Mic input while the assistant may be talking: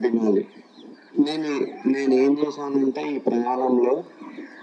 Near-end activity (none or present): none